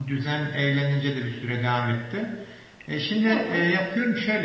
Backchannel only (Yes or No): Yes